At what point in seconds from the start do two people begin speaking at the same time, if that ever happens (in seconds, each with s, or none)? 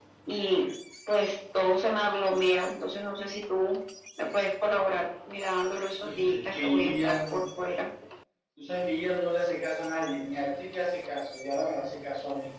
6.0 s